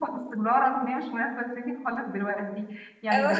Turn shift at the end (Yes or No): No